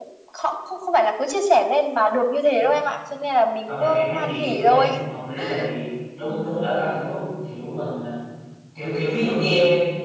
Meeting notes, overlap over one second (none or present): present